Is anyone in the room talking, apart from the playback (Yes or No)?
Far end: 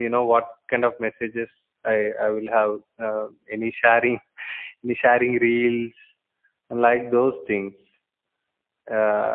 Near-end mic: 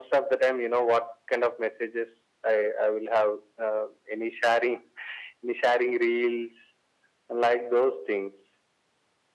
No